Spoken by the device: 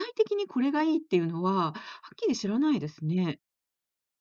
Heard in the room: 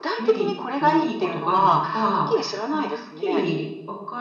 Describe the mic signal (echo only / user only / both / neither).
both